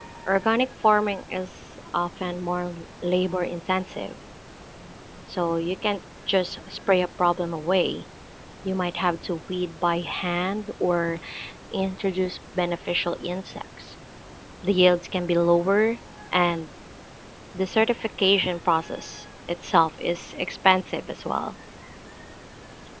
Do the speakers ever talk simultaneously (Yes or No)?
No